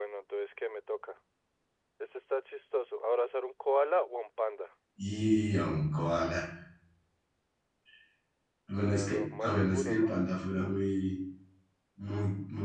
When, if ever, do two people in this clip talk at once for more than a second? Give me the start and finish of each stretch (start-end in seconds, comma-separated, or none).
8.8-10.1